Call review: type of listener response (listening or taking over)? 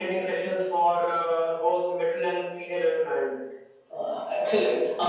taking over